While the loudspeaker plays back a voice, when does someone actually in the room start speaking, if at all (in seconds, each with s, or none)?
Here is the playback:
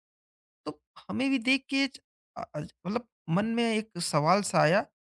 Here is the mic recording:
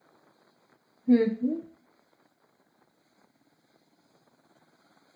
1.1 s